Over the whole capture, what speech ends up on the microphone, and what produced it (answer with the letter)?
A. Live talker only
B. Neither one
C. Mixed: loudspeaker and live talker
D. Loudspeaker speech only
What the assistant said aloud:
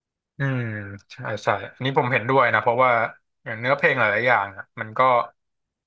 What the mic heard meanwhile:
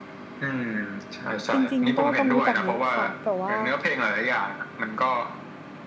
C